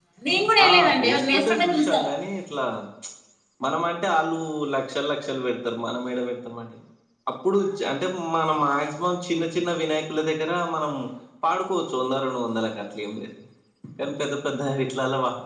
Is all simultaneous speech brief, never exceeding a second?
No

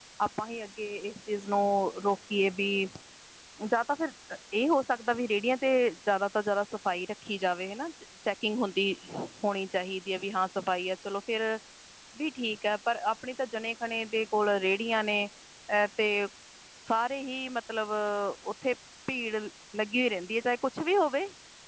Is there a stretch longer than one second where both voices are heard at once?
No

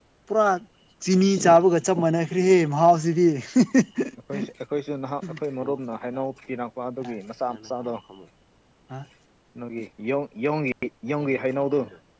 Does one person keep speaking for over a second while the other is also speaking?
No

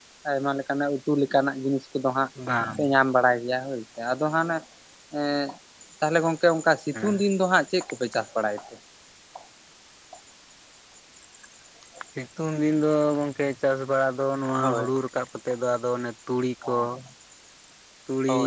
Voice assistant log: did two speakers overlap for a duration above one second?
No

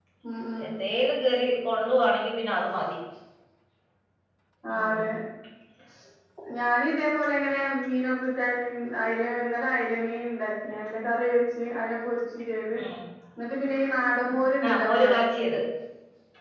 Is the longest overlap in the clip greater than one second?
No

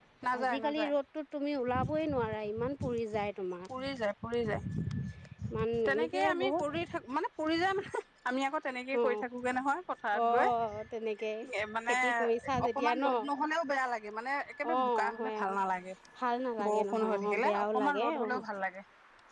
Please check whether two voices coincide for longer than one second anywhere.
Yes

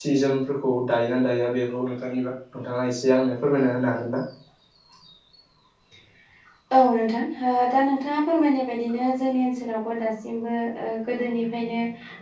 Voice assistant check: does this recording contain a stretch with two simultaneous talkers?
No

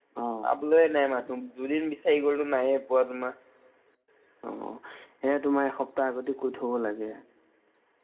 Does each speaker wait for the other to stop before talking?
Yes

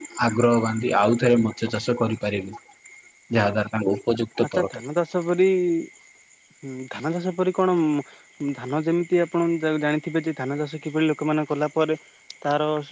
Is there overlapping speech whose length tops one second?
No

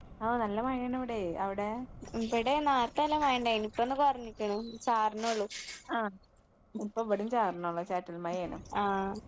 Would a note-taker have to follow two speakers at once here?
No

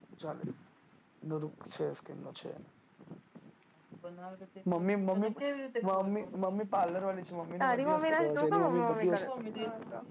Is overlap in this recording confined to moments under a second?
No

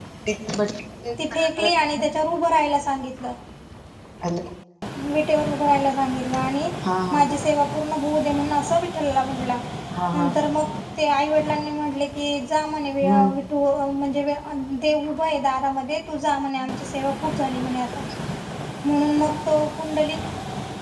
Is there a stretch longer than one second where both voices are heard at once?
No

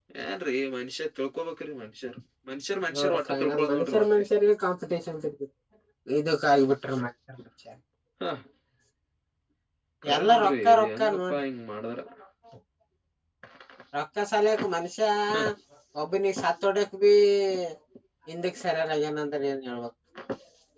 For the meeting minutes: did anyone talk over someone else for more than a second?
Yes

